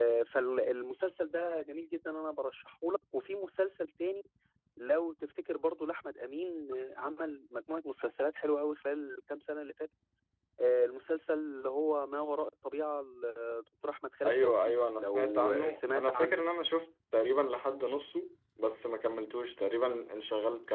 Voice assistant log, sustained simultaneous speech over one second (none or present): present